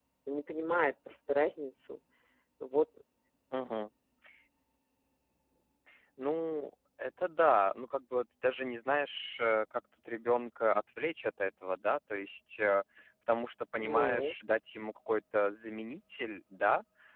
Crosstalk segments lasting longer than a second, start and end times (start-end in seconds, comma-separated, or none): none